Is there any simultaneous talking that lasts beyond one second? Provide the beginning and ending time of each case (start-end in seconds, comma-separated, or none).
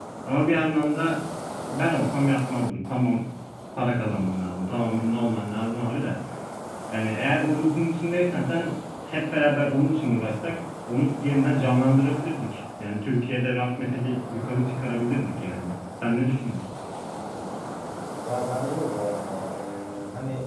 none